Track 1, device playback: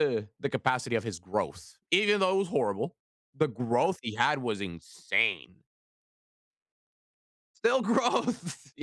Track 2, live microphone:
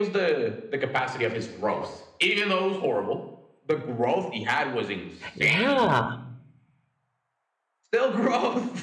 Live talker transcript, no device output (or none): Yeah.